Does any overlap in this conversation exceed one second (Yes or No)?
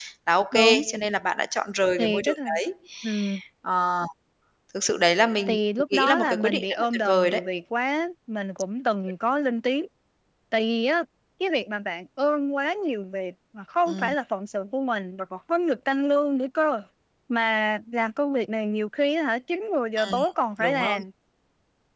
Yes